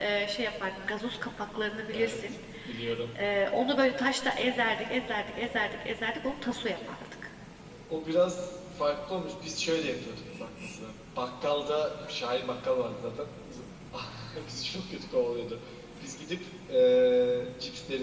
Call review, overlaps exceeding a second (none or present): none